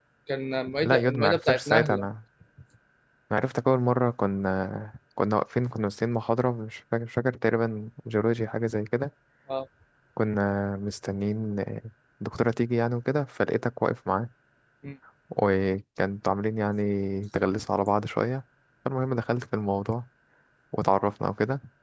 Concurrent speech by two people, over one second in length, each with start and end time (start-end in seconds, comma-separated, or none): 0.8-2.1